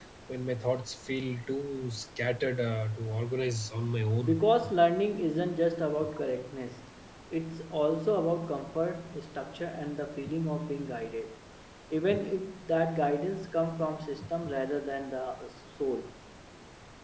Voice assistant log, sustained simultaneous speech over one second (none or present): none